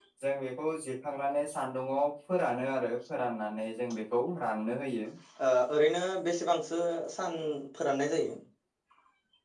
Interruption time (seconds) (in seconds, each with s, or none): none